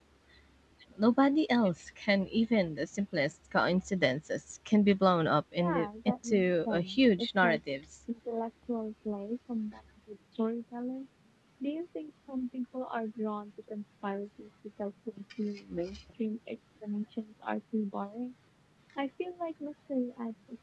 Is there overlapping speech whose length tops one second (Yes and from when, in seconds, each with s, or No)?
Yes, from 5.6 s